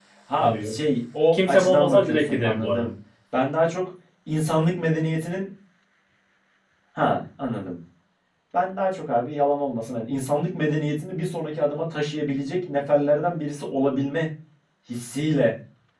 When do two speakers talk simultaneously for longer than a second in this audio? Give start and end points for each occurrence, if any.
1.3-2.8

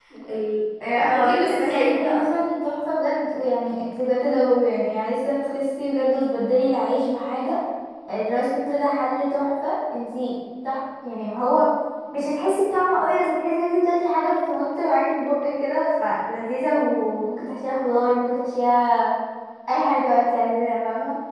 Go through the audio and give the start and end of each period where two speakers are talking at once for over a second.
1.0-2.2

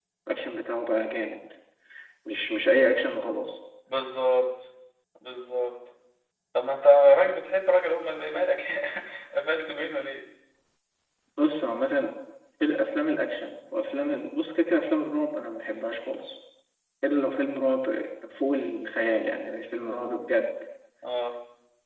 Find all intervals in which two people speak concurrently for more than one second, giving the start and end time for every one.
none

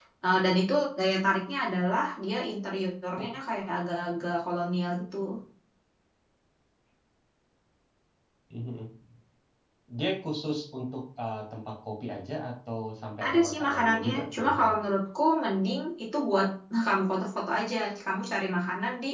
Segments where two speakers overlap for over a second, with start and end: 13.2-14.7

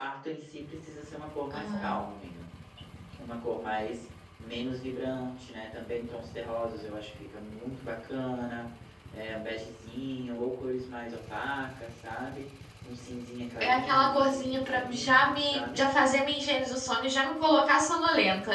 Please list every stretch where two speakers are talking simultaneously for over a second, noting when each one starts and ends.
13.6-15.8

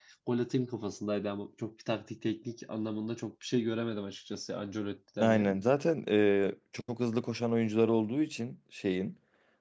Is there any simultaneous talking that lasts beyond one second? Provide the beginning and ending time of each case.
none

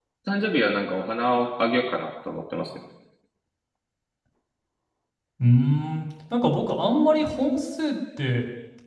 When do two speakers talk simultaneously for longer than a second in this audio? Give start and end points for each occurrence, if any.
none

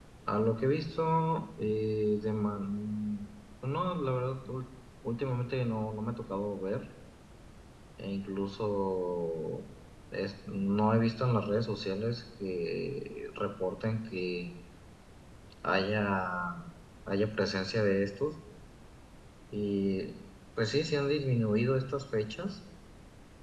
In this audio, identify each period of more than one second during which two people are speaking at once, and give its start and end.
none

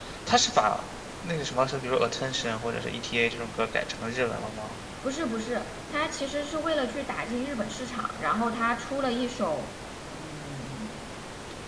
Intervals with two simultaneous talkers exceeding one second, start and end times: none

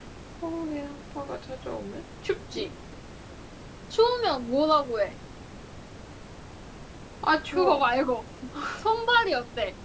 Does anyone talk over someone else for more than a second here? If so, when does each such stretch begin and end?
none

